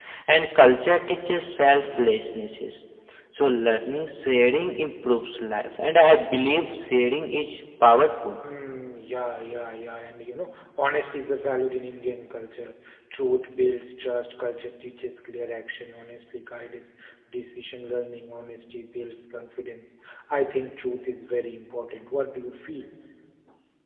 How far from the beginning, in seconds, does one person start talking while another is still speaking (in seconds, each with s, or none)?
none